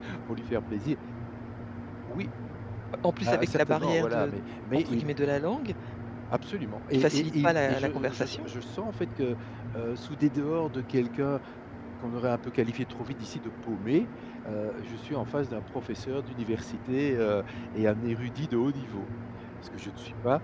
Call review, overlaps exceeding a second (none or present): present